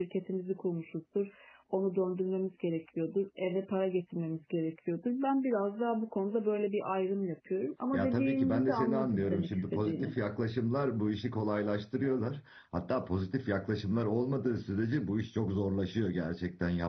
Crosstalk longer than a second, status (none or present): present